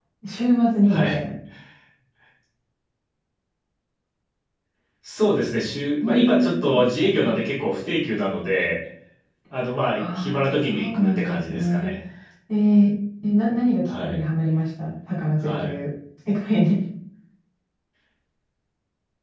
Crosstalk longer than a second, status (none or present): present